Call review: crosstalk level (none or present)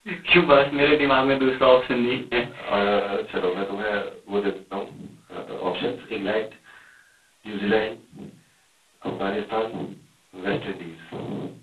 none